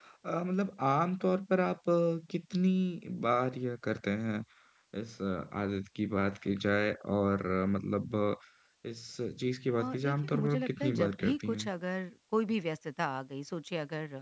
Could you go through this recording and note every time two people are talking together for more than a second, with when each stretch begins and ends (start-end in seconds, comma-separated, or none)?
9.8-11.7